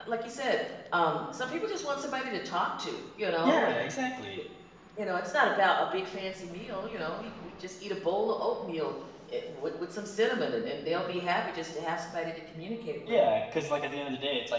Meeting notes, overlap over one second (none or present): none